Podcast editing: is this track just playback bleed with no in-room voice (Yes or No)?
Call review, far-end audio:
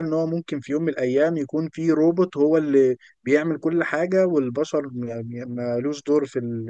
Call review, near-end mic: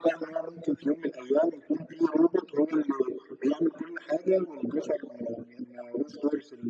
Yes